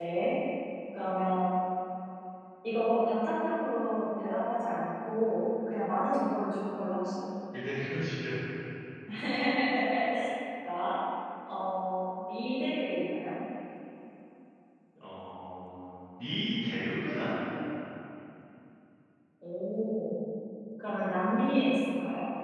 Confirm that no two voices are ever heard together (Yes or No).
Yes